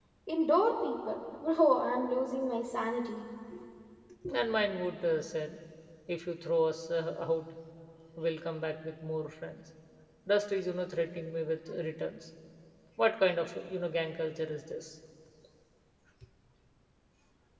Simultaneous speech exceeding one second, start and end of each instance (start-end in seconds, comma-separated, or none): none